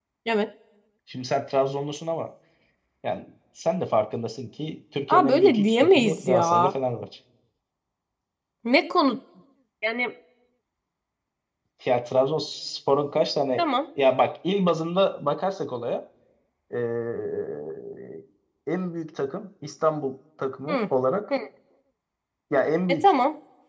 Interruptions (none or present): present